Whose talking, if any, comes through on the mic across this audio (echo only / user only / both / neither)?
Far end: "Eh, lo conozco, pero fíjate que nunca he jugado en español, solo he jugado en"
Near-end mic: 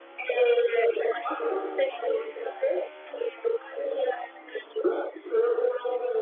echo only